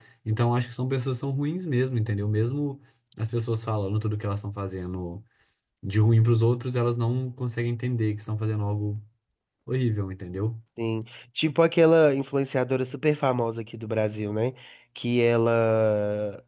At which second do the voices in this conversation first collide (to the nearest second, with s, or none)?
none